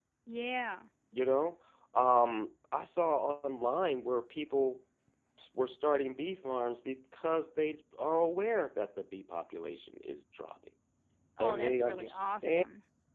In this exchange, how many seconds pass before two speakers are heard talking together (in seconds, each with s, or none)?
11.4 s